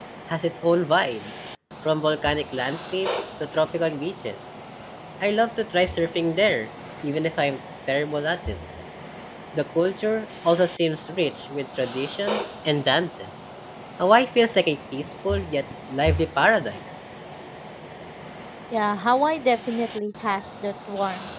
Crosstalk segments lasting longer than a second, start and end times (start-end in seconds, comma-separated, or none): none